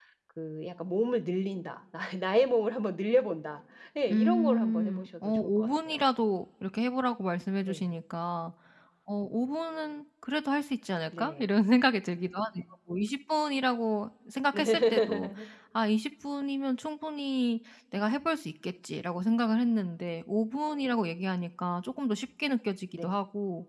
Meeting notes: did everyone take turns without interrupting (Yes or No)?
No